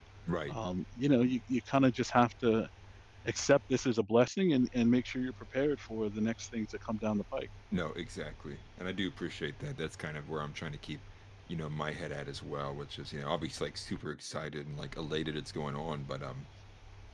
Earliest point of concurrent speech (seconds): none

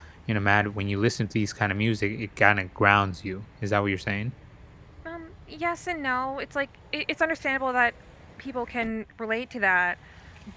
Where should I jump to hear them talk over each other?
none

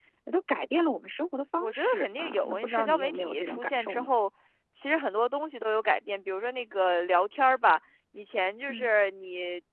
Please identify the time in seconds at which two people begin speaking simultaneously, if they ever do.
2 s

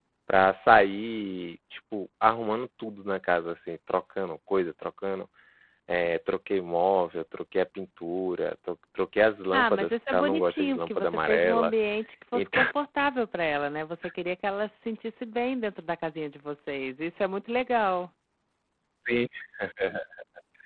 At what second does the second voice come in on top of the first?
10 s

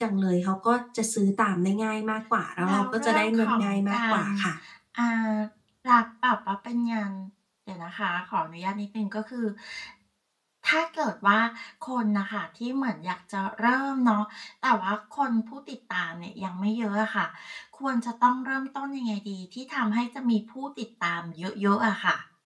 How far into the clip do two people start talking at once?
3 s

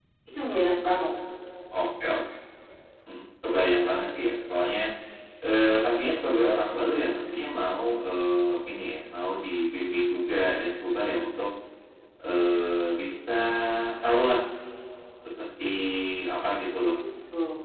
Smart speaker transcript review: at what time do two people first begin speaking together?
none

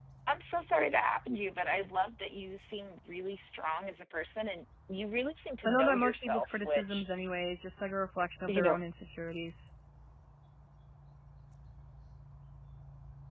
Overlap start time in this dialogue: 6 s

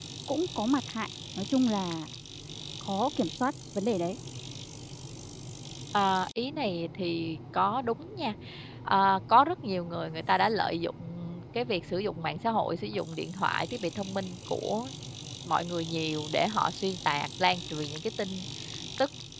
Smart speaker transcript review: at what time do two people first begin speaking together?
none

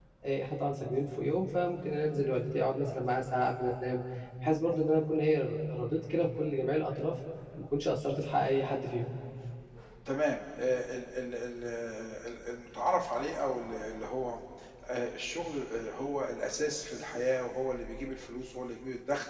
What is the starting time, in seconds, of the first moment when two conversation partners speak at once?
none

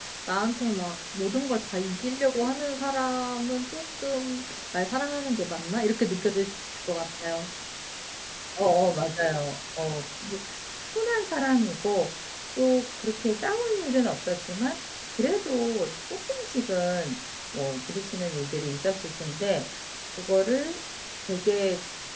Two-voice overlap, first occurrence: none

